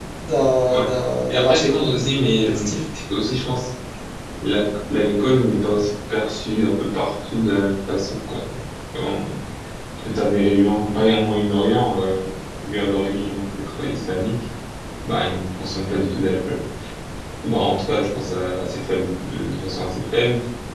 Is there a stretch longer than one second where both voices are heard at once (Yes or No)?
Yes